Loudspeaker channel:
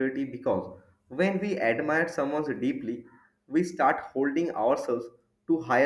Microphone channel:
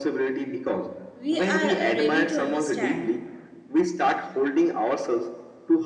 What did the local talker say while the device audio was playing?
we are uh, ready to understand

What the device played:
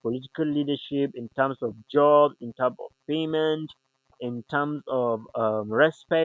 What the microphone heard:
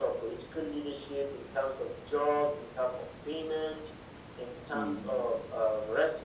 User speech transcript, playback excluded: Mm.

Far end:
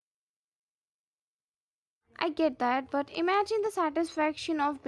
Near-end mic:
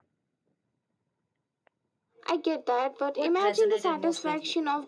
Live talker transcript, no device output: What resonated most with you?

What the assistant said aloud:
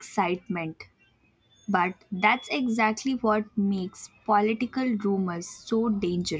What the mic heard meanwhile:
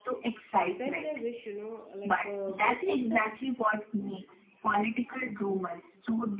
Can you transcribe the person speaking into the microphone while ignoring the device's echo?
sometimes i wish you know like uh, voting felt

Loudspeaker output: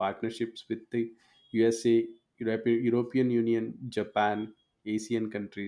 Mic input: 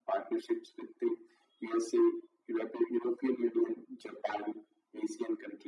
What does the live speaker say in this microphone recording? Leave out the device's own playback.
none

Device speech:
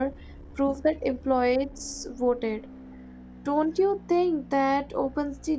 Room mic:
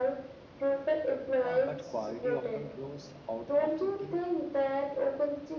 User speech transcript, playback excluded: Uh, but quality often grows out of routine.

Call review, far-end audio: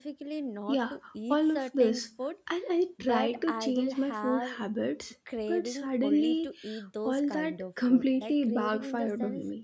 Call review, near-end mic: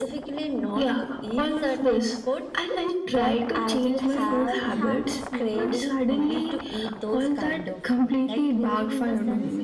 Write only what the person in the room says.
Changing habits means

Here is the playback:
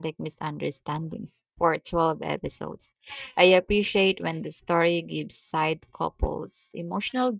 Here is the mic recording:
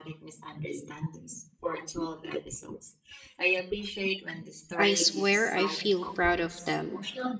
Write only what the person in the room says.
I swear I feel proud of them,

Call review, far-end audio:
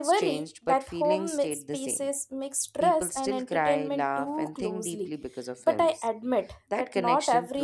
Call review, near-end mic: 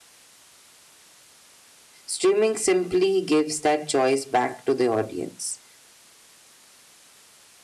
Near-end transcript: Streaming simply gives that choice back to the audience.

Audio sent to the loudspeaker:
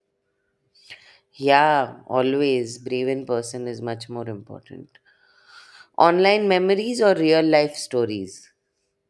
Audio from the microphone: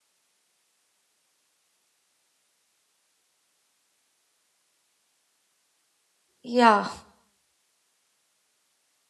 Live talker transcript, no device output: Yeah,

